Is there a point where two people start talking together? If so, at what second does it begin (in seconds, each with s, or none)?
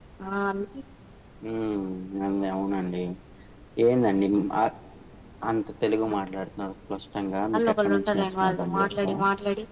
7.5 s